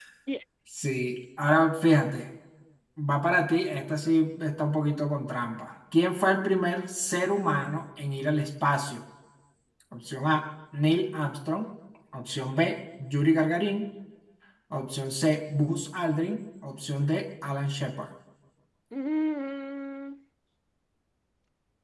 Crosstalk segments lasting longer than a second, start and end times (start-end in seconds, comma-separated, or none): none